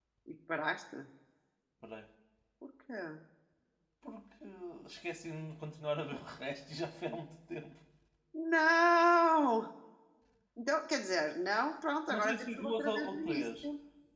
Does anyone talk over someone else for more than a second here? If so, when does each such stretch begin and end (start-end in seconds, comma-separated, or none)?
12.1-13.7